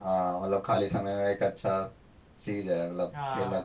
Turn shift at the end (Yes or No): Yes